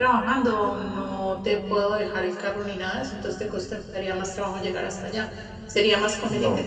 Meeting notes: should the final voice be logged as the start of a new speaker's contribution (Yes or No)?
No